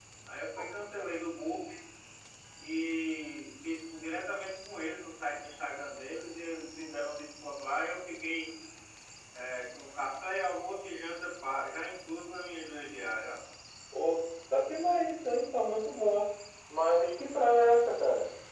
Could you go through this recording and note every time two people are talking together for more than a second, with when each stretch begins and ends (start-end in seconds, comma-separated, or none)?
none